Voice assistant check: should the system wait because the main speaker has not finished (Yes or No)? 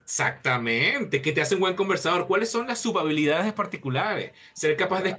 Yes